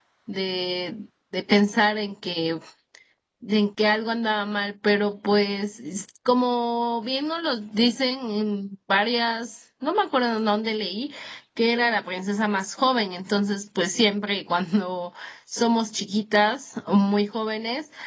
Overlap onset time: none

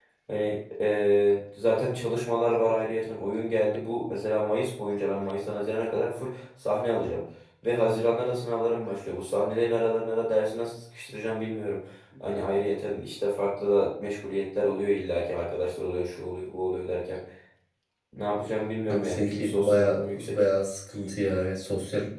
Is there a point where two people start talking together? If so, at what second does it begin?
18.9 s

